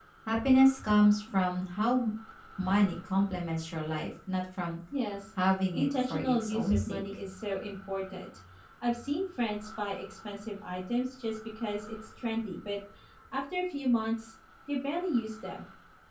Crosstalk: present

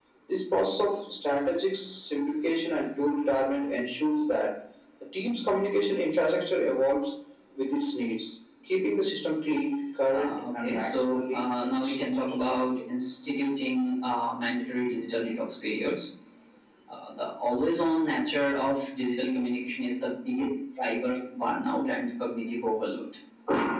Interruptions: present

